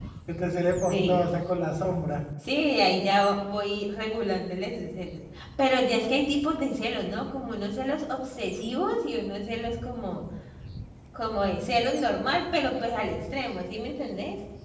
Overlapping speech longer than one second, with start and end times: none

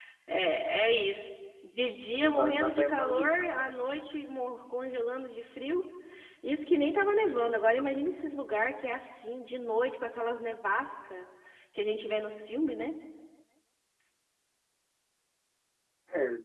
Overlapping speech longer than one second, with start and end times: 2.2-3.5

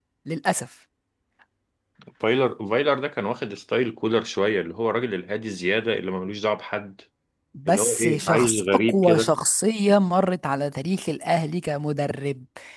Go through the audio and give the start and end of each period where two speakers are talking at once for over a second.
7.7-9.3

